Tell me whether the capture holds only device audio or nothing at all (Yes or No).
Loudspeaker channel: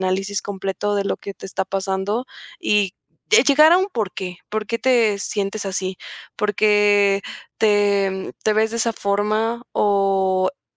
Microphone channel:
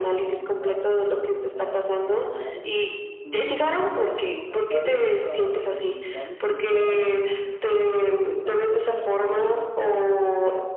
No